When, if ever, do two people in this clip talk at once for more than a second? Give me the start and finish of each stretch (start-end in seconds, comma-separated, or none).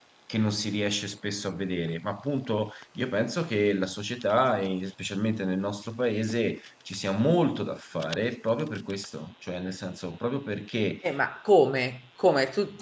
none